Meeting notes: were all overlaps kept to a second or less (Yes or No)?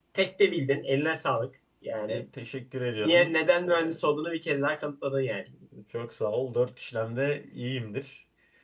Yes